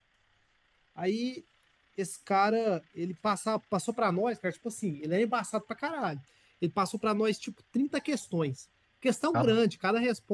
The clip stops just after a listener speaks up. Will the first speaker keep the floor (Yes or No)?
Yes